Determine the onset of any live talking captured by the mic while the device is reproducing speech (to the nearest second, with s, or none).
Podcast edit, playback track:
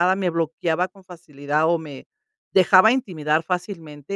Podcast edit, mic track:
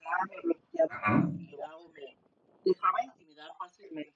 1 s